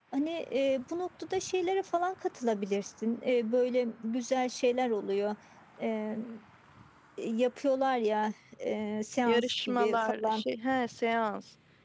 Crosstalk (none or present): present